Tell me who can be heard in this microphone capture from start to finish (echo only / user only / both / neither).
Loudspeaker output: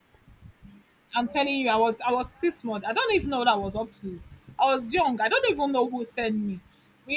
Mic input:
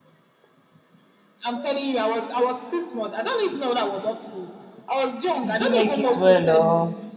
both